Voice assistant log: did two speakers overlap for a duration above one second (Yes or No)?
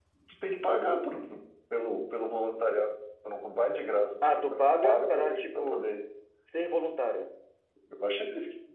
Yes